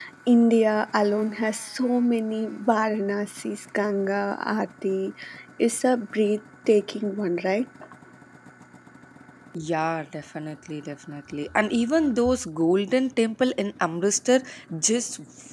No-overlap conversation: Yes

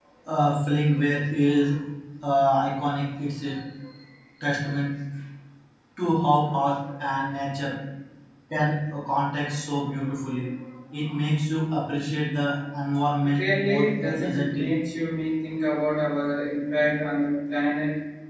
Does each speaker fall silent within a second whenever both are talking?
No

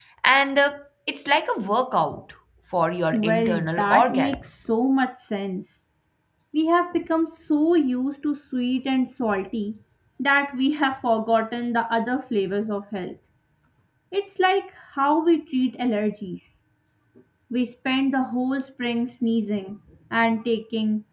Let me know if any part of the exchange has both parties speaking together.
Yes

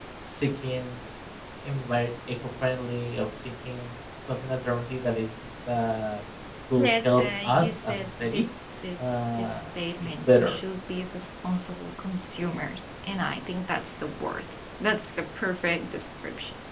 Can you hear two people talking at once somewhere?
Yes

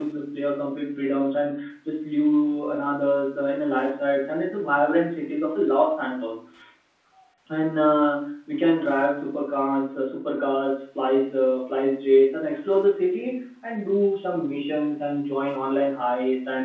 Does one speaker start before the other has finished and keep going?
No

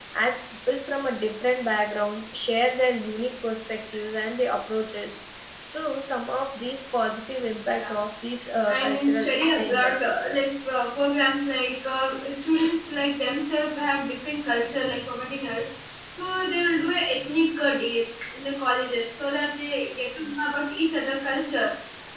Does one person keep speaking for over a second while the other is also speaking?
Yes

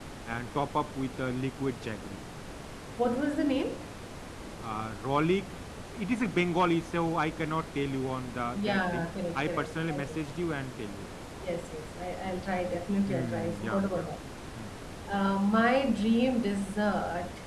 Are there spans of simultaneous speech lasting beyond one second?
Yes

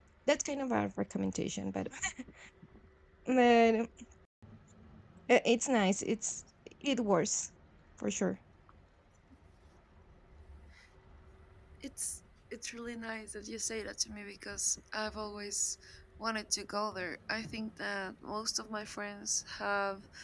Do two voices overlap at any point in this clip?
No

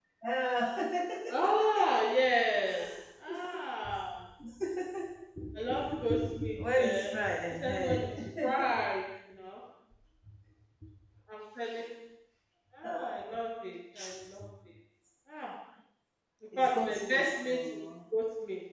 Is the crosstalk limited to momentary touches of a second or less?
No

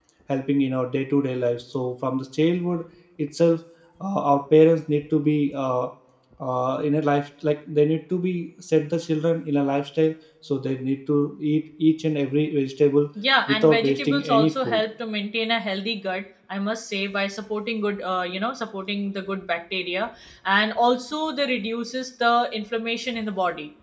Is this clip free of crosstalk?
No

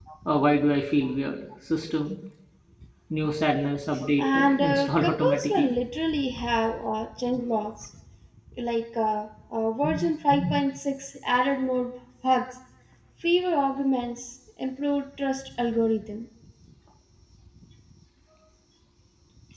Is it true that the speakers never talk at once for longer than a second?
No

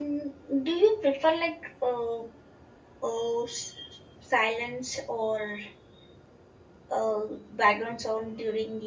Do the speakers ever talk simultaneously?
No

